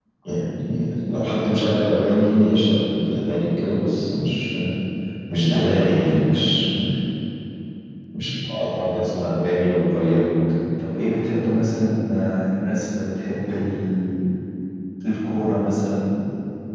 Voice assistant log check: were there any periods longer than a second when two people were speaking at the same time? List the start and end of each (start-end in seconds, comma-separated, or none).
5.5-6.8